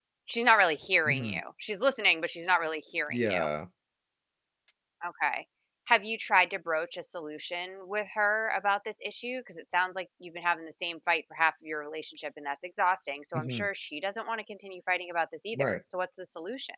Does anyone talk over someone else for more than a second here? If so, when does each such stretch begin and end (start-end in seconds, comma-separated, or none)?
none